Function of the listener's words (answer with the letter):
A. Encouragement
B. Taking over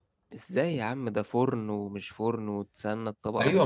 B